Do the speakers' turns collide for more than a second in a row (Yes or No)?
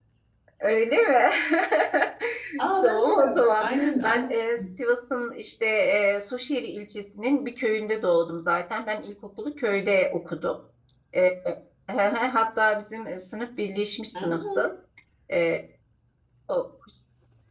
Yes